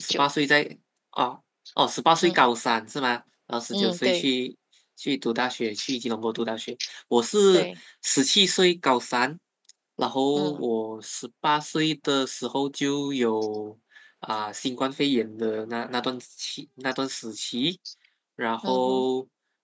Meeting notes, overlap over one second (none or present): none